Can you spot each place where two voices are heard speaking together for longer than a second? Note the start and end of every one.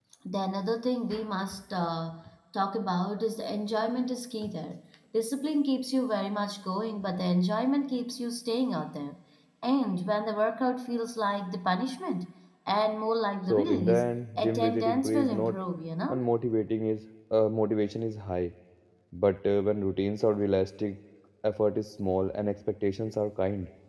13.5-15.6

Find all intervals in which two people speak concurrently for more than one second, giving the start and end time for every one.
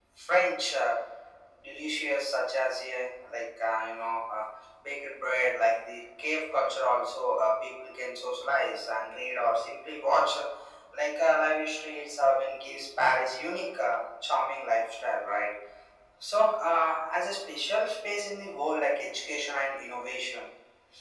none

